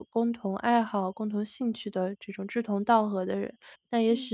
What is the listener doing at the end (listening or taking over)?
listening